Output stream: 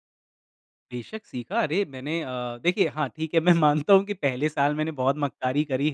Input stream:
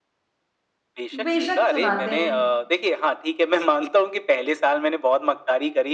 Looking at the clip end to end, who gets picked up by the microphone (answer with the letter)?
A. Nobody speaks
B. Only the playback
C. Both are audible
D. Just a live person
C